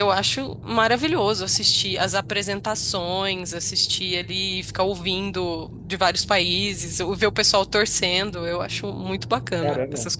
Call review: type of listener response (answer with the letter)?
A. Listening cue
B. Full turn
B